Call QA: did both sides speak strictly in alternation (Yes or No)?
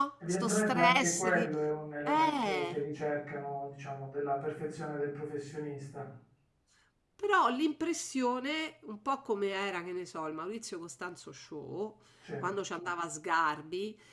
No